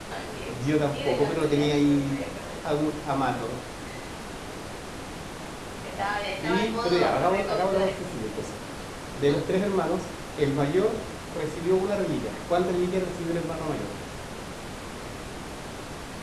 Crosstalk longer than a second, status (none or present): present